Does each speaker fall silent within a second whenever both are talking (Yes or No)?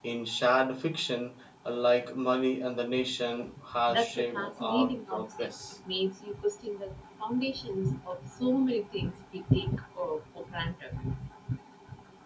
No